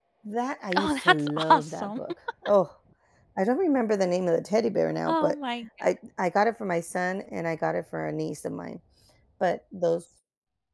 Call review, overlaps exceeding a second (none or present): present